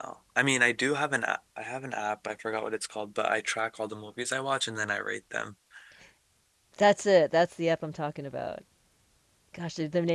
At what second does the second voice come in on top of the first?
none

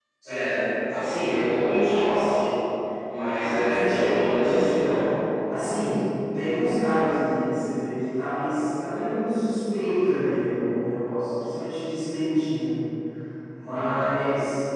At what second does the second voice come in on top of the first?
3.2 s

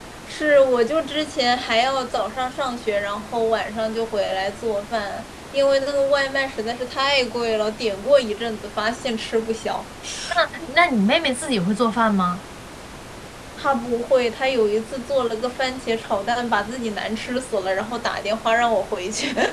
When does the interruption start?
none

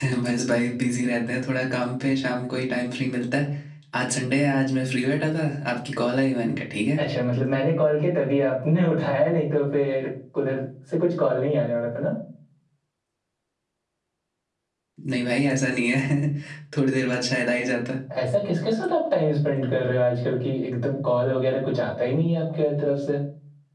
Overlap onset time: none

